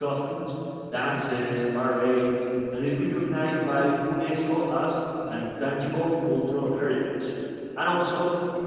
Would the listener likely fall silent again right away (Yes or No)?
Yes